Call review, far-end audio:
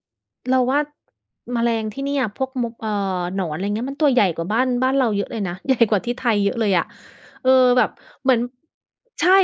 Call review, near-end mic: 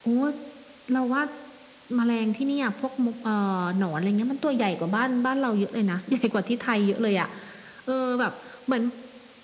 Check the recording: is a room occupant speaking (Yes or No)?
No